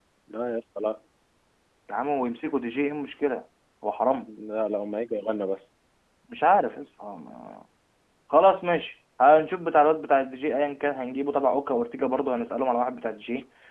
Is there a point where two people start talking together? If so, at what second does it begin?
none

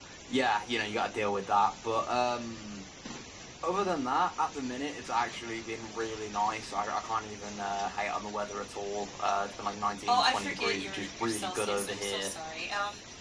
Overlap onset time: 10.1 s

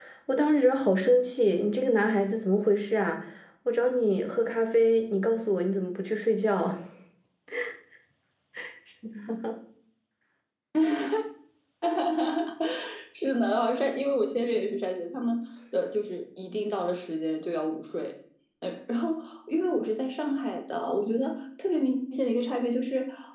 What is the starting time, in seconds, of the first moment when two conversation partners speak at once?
none

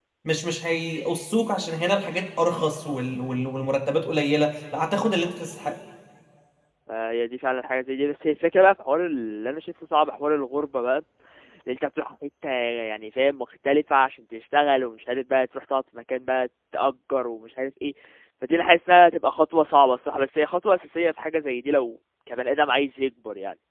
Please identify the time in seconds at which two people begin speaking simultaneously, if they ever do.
none

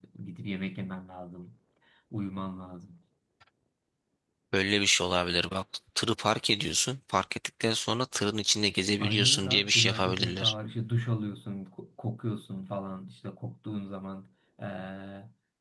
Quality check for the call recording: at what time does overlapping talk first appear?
9.0 s

